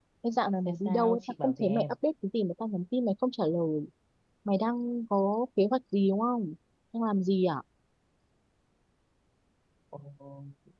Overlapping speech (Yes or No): Yes